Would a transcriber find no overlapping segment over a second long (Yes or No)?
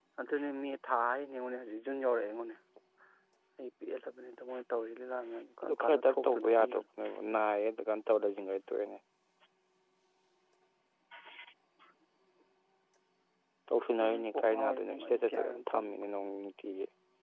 No